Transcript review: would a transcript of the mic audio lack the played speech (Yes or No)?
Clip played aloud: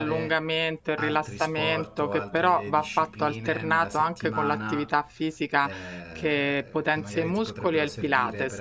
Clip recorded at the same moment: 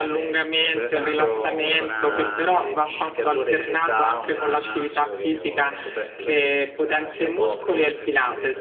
No